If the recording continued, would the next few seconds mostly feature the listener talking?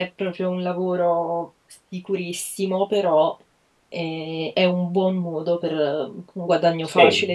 Yes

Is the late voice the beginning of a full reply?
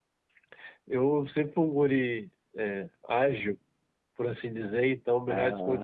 No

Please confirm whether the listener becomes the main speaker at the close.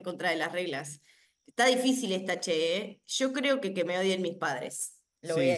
Yes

